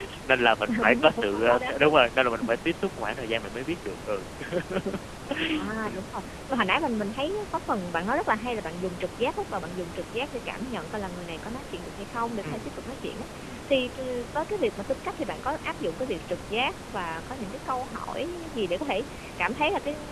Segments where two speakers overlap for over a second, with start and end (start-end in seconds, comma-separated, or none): 0.7-1.9